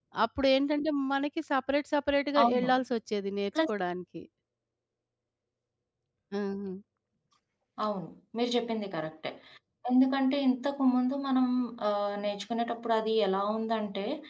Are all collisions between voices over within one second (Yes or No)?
Yes